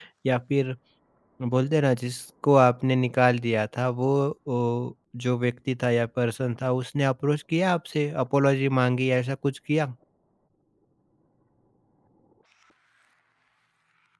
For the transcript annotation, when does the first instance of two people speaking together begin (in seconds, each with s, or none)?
none